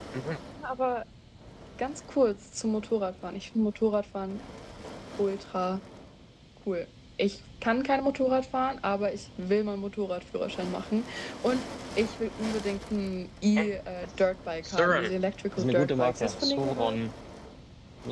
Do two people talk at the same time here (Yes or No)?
Yes